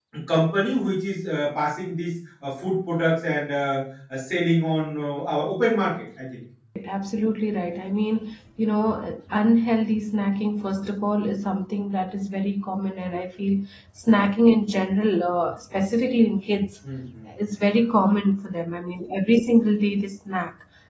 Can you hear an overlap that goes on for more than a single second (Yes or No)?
No